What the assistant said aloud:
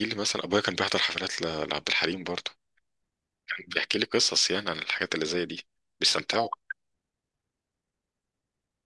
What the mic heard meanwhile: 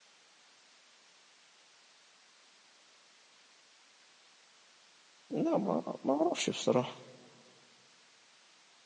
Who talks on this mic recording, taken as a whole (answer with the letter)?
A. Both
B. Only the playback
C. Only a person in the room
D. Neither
C